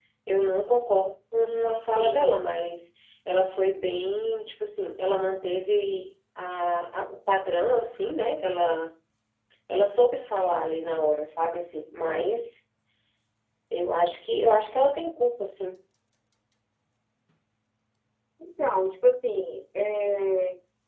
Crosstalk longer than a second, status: none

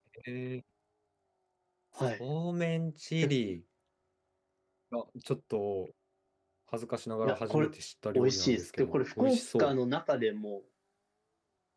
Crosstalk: present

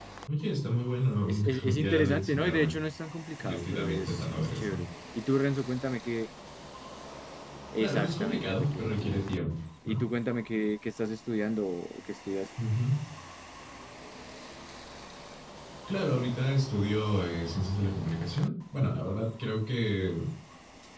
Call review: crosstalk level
present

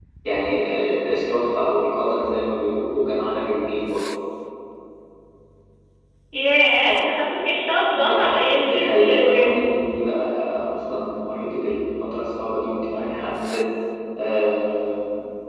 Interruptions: present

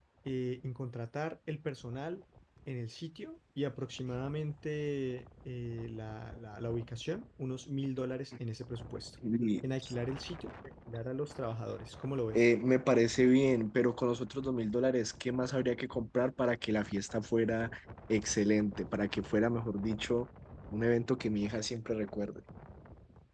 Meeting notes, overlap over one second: none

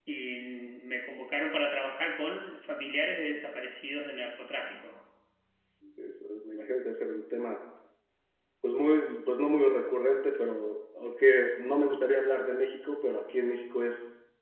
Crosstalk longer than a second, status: none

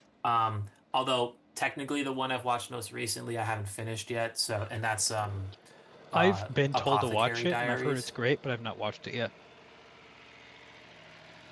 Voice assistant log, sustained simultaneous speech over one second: present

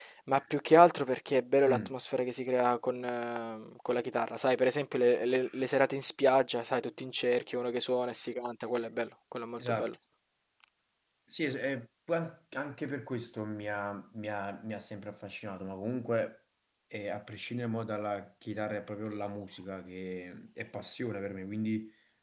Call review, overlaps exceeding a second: none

